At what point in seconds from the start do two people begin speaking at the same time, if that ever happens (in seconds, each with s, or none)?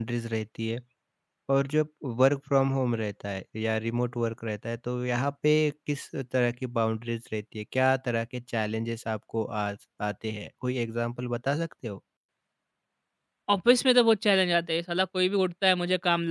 none